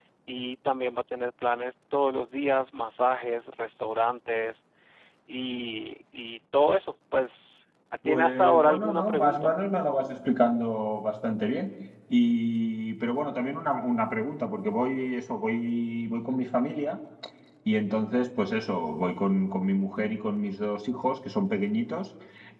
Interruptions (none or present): present